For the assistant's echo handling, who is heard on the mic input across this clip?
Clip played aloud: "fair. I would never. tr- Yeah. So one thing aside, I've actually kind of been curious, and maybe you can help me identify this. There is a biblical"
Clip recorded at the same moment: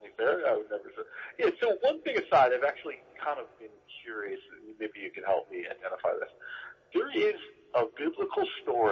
echo only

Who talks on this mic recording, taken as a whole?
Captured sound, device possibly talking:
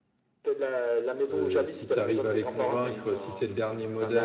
both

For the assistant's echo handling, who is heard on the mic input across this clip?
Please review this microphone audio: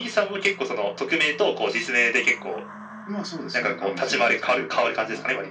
echo only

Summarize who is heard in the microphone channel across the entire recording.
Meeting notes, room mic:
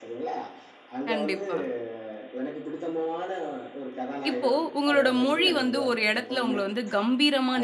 both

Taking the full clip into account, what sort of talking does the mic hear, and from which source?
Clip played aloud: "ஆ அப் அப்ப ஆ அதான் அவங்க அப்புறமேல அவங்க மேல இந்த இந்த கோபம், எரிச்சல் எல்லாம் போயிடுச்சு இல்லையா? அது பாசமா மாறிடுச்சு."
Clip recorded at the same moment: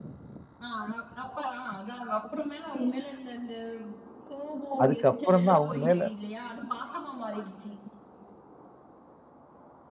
both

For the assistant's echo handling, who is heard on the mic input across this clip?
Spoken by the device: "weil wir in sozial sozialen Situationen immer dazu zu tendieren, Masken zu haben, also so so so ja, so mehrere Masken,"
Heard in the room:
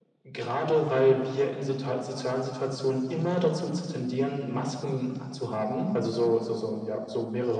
echo only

